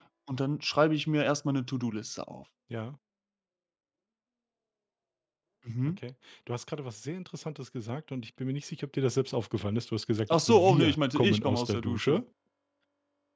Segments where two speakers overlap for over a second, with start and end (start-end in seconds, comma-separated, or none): 10.3-12.2